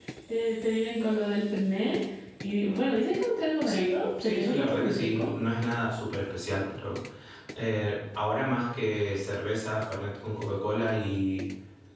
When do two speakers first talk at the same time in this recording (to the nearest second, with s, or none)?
4 s